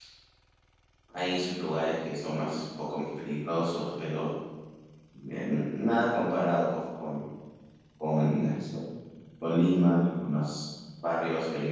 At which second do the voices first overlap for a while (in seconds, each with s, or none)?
none